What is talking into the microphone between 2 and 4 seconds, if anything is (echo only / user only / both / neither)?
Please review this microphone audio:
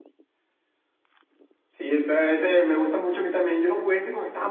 echo only